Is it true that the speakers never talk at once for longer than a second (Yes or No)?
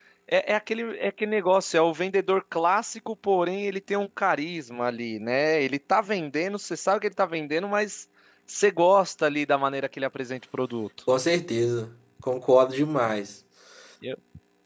Yes